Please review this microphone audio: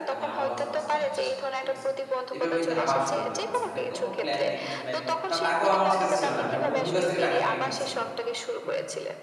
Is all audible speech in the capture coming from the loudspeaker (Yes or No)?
No